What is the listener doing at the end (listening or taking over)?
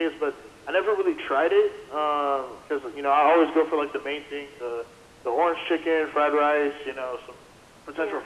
listening